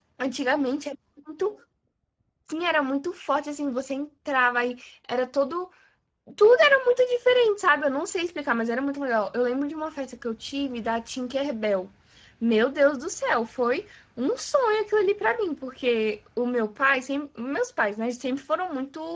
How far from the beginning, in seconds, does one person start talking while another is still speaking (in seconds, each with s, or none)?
none